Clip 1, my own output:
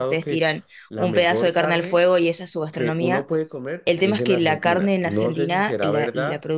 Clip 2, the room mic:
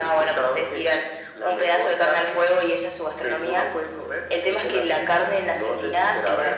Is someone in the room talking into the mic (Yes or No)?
No